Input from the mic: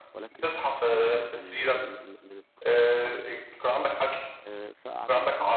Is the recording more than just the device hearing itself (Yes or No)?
Yes